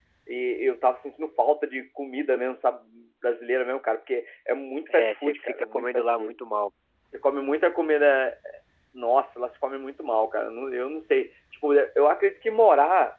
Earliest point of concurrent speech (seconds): 5 s

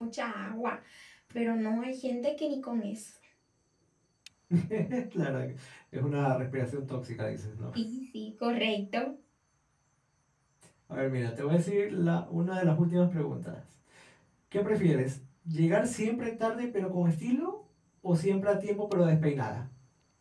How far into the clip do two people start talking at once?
none

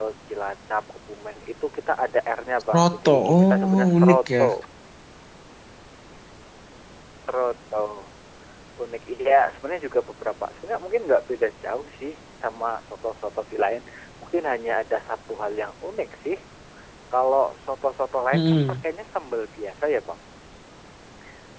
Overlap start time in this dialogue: 3 s

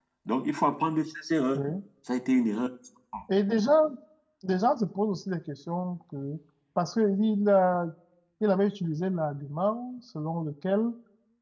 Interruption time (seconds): none

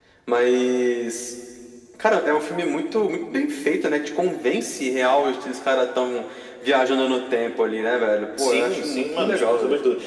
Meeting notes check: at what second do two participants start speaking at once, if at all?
8 s

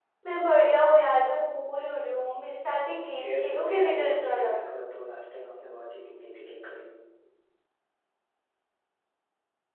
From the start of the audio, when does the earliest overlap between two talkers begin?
3 s

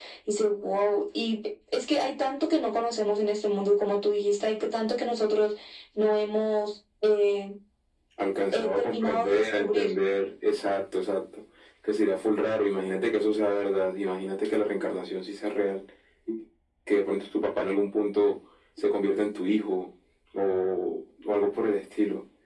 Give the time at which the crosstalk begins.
9 s

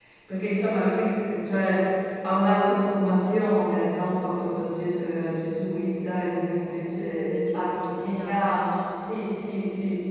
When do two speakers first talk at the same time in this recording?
7 s

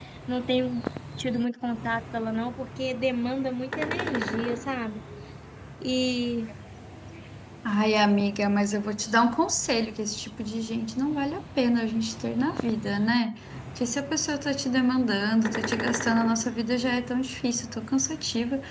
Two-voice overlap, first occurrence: none

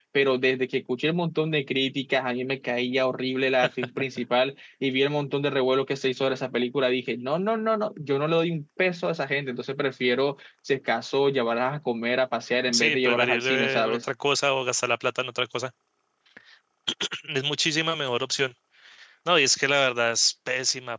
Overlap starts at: 13 s

